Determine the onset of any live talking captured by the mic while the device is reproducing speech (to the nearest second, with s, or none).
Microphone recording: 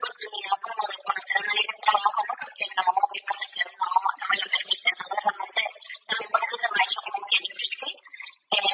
none